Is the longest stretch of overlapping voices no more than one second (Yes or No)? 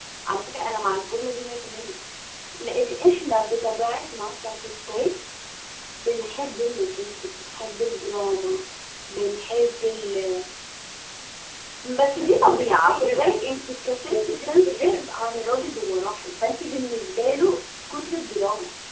No